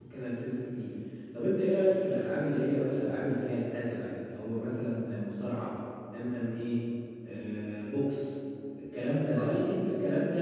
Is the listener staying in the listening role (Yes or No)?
Yes